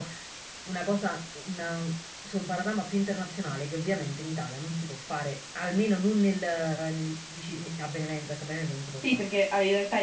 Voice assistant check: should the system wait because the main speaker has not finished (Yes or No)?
No